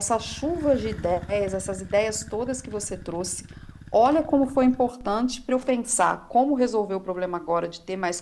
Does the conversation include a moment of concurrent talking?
No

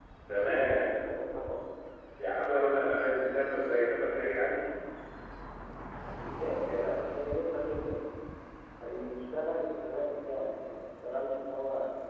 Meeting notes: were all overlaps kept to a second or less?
Yes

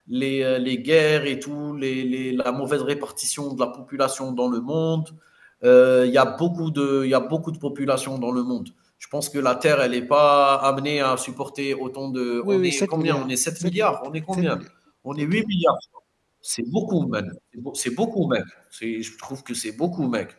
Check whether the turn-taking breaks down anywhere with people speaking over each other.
Yes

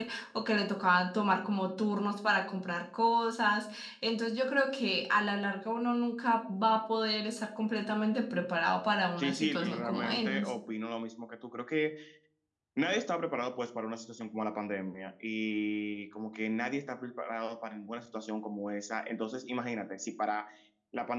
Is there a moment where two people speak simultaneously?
Yes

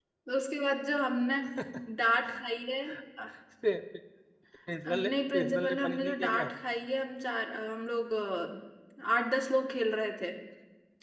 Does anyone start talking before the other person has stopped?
Yes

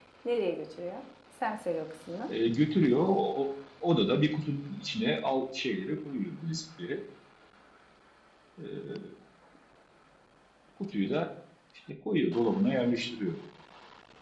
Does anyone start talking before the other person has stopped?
No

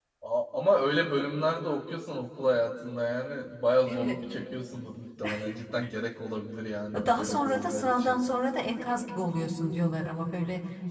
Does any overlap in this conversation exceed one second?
Yes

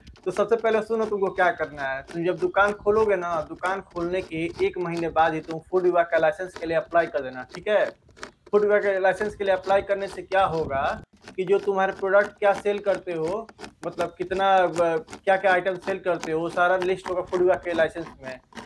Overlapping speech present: No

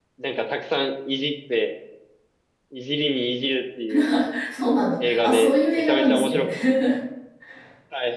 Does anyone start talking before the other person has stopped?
Yes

